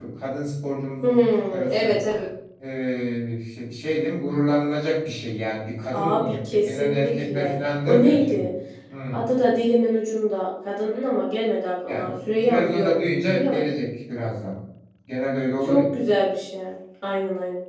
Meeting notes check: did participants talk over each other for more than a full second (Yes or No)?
Yes